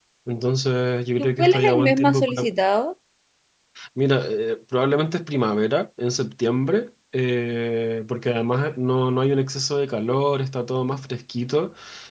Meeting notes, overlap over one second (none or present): present